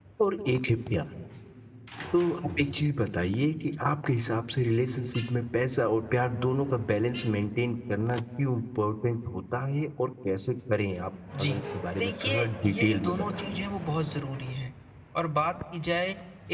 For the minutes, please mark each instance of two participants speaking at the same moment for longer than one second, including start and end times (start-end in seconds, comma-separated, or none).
12.0-13.4